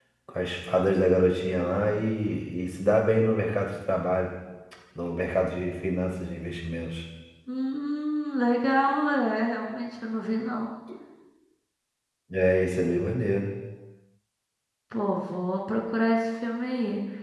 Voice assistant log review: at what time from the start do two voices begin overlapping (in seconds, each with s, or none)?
none